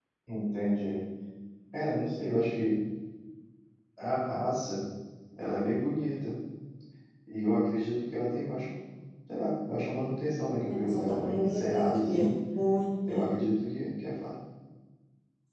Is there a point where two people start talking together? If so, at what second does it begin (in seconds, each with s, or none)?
10.7 s